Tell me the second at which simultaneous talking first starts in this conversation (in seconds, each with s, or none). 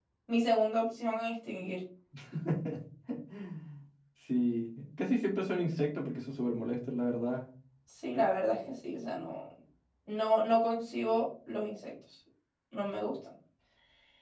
none